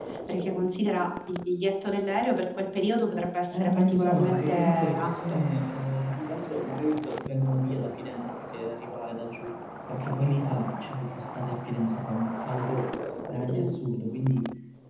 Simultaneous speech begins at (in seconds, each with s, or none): 3.5 s